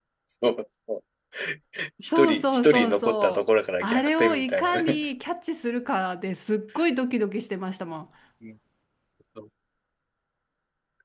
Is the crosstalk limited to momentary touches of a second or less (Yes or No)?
No